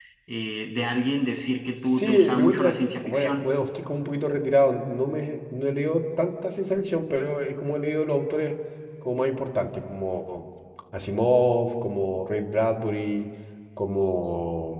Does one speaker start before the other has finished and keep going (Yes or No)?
Yes